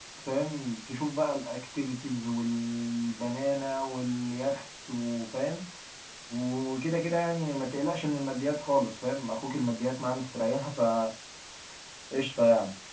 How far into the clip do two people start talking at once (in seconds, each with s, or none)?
none